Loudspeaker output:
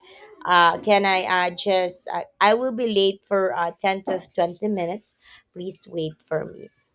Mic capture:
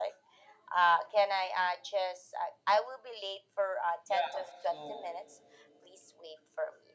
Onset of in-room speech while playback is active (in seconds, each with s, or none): 4.0 s